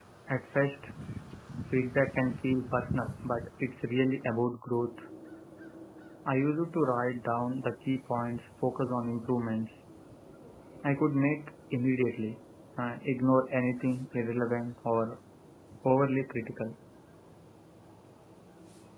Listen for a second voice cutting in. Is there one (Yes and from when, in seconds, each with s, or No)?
No